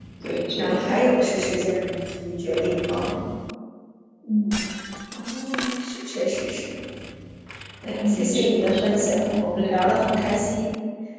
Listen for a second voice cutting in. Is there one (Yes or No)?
Yes